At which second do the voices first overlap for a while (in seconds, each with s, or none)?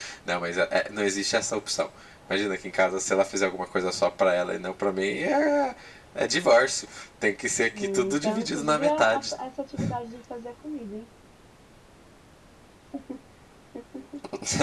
7.7 s